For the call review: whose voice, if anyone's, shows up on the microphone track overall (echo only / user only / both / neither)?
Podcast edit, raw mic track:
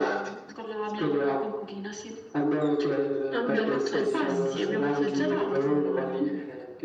both